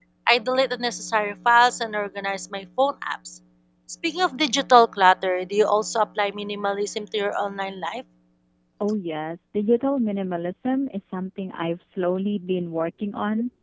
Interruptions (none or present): none